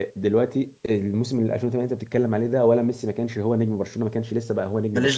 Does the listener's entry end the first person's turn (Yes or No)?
No